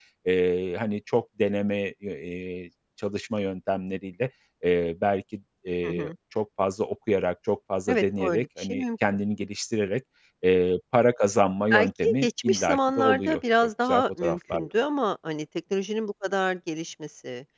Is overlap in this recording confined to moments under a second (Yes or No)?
No